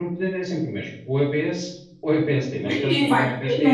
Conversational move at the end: taking over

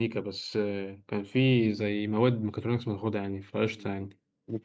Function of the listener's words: taking over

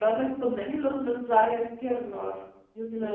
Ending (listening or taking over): taking over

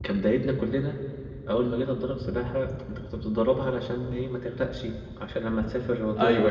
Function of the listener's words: listening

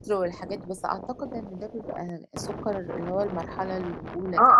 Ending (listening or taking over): taking over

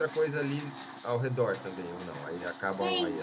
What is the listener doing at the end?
taking over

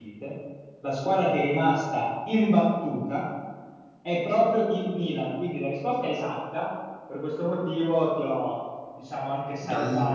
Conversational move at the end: listening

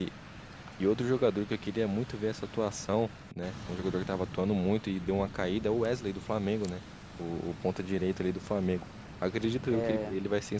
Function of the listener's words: listening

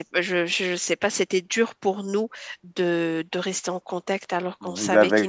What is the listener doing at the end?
taking over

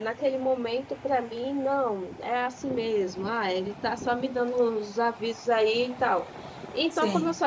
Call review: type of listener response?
listening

